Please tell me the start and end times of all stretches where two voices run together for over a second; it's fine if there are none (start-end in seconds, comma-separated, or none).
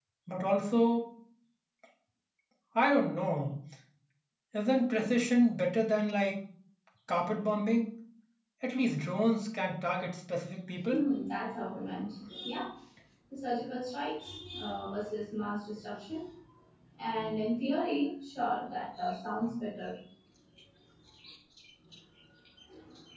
none